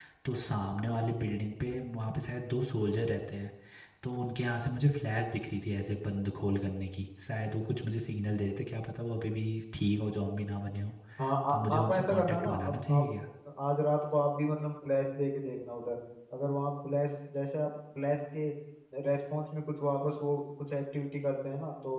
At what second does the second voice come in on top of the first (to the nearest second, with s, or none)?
11 s